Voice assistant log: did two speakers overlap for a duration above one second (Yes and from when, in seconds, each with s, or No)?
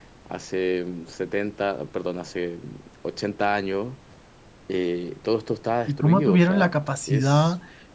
Yes, from 5.9 s